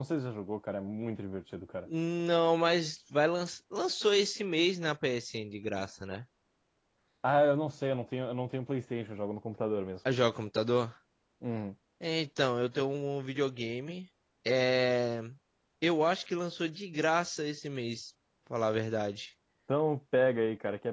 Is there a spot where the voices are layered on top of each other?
No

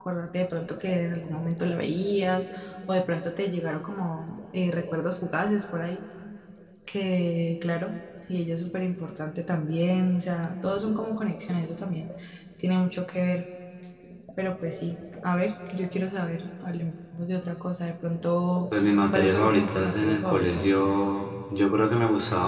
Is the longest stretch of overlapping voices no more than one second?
No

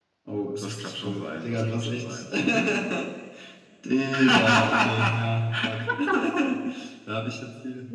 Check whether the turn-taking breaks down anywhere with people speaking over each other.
Yes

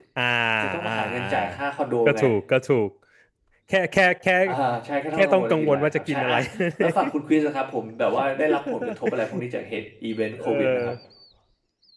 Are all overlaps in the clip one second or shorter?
No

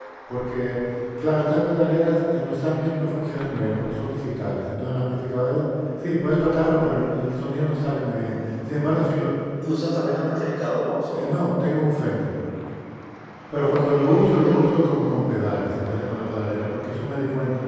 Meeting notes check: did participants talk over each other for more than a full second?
No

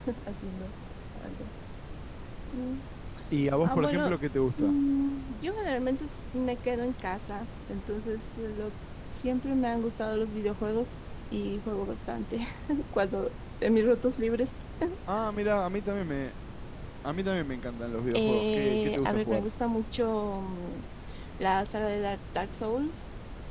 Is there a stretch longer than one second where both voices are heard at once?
Yes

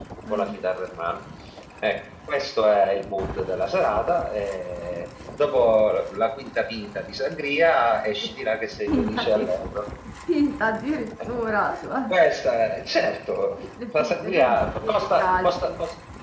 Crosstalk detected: Yes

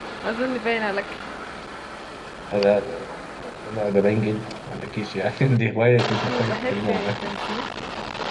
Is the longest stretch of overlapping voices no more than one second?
No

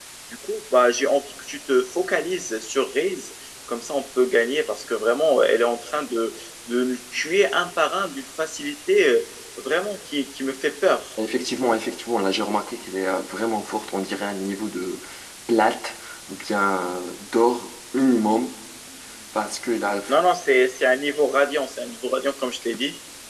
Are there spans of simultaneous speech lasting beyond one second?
No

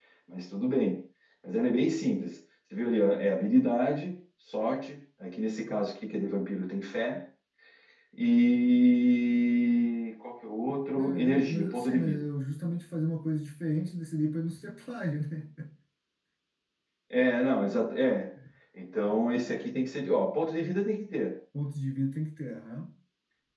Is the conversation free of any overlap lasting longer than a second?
No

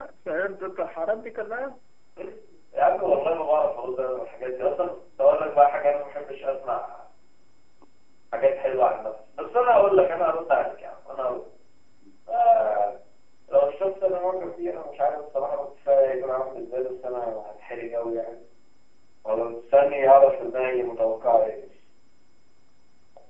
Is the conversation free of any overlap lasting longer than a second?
Yes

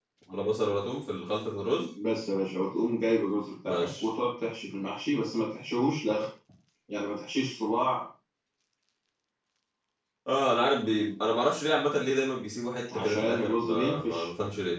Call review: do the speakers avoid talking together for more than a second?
No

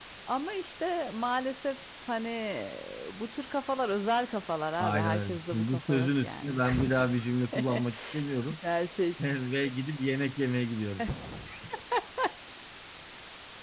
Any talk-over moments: Yes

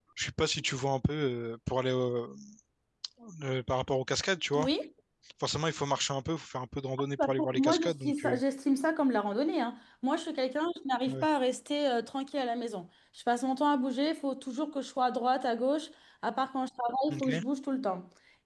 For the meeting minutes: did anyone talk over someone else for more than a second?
Yes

